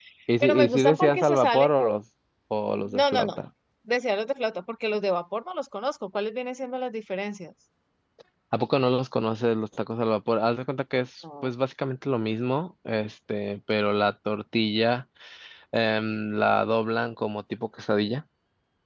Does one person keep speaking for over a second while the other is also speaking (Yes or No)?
Yes